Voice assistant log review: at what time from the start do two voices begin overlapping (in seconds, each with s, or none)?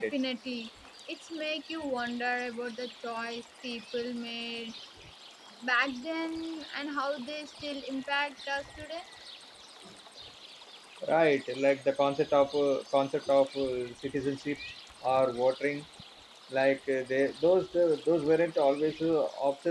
none